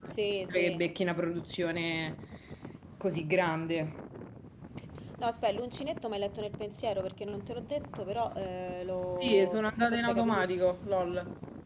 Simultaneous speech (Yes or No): Yes